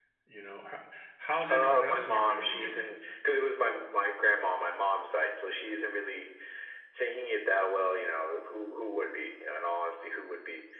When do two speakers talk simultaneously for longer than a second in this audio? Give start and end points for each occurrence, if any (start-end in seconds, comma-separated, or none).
1.5-2.9